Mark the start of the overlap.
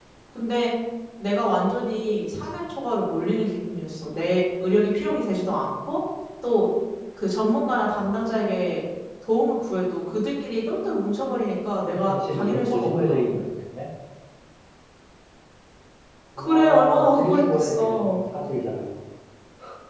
11.9 s

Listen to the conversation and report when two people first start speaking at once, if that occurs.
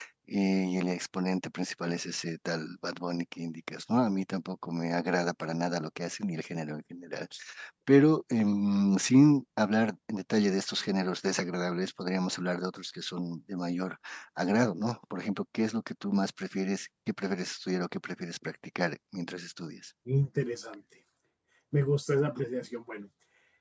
none

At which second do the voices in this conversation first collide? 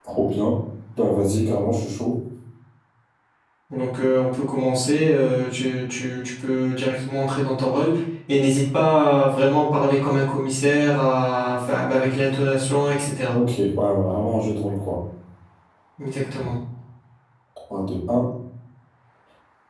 none

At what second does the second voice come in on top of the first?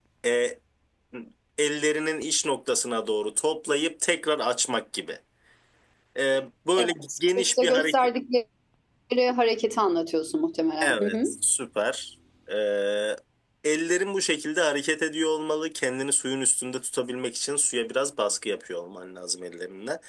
6.8 s

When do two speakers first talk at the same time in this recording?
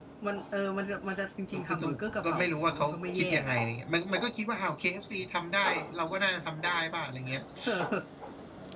1.5 s

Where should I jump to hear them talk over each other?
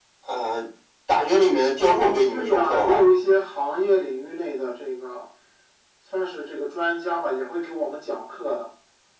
1.8 s

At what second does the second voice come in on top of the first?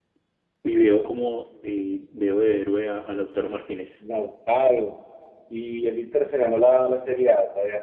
none

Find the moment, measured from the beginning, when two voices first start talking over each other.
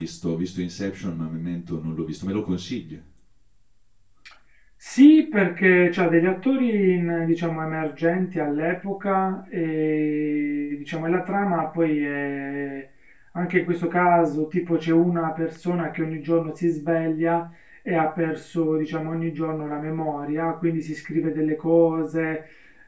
none

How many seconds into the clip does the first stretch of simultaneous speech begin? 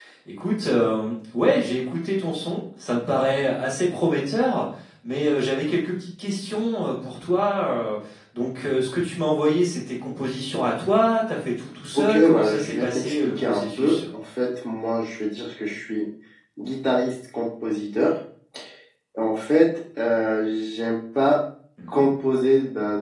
12.0 s

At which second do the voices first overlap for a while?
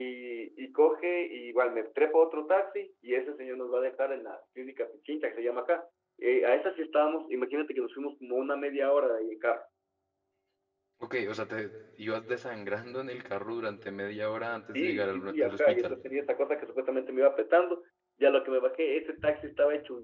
14.7 s

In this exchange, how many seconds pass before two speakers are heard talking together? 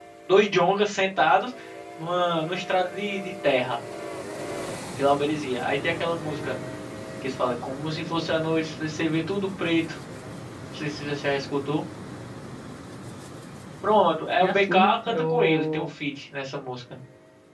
14.4 s

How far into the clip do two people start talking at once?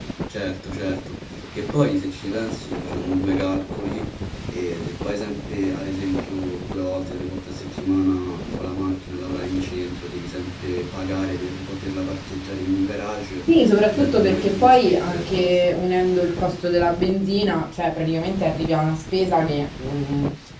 13.9 s

